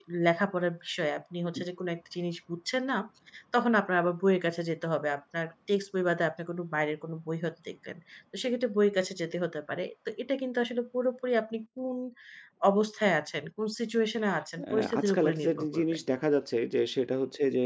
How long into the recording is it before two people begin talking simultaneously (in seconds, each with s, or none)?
14.6 s